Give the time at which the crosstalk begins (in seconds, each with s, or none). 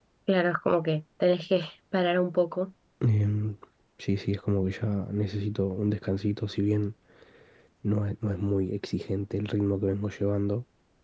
none